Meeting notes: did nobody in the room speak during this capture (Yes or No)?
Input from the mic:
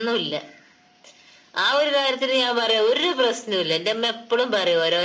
Yes